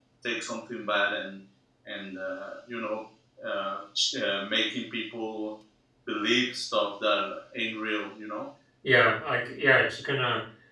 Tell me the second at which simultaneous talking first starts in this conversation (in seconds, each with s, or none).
none